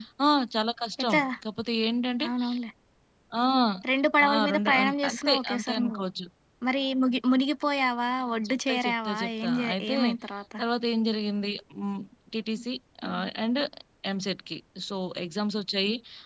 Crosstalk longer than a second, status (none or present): present